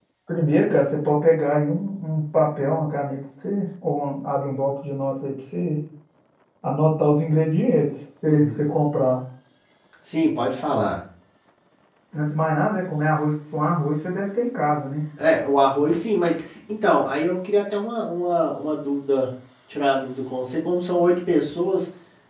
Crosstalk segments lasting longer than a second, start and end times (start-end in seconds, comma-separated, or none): none